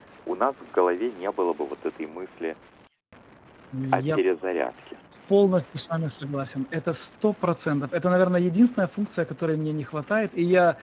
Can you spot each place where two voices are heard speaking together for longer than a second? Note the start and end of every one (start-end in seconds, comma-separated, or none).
none